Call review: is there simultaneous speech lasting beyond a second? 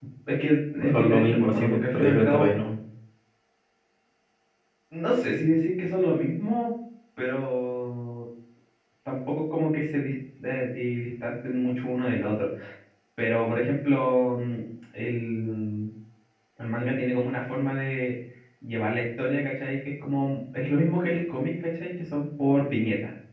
Yes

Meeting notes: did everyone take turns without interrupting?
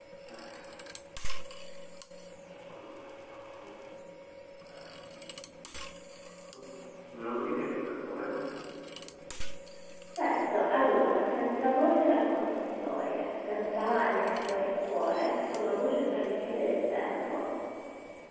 Yes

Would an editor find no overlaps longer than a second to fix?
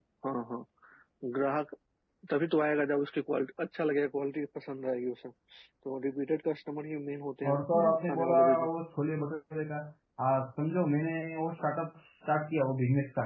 No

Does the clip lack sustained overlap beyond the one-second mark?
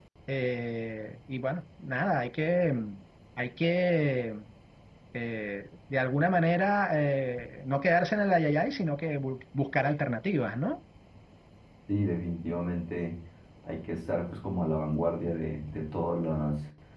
Yes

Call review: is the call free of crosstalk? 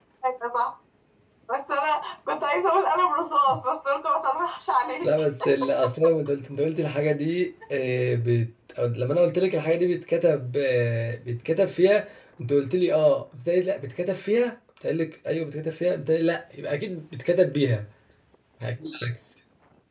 Yes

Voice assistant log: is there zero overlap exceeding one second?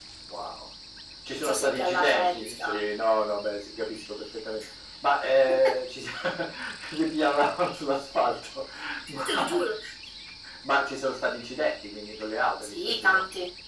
No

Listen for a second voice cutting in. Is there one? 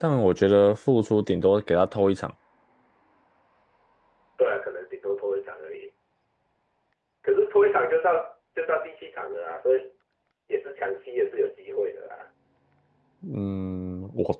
No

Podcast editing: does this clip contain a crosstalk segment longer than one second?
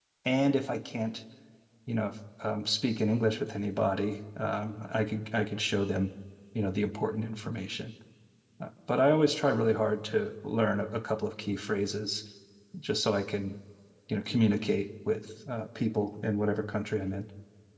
No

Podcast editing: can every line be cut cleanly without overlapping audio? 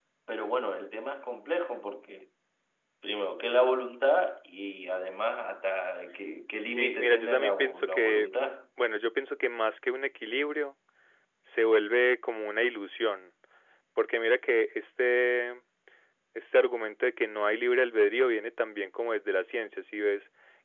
No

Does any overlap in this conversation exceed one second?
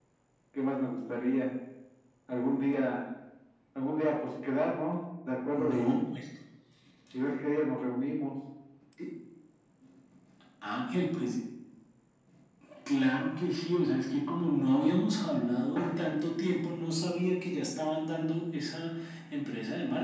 No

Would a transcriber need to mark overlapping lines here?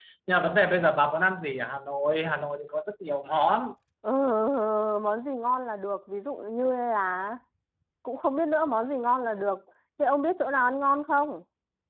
No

